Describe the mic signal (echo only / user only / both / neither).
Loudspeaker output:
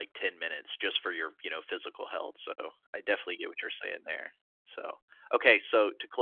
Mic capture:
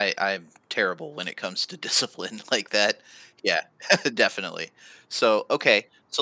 user only